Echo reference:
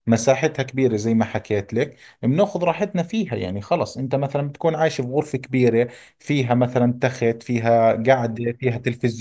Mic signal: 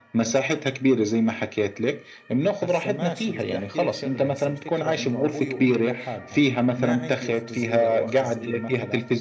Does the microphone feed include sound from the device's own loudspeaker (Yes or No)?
Yes